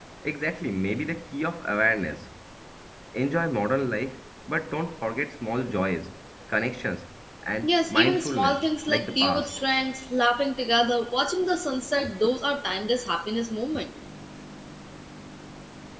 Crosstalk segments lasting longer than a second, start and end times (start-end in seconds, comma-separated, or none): 7.6-9.6